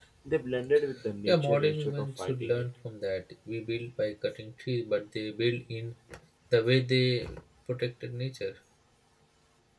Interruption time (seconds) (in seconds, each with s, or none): 1.3 s